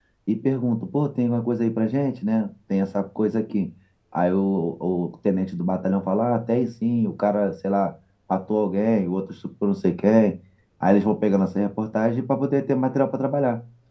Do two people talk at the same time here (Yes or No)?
No